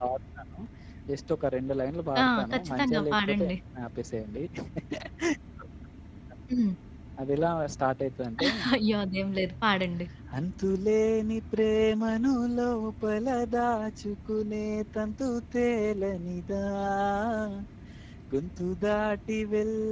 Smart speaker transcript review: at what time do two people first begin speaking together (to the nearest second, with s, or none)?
2 s